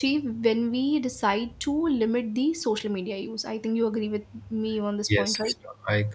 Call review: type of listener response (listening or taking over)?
taking over